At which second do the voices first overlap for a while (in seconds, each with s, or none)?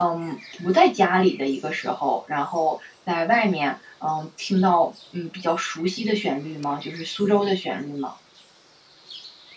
none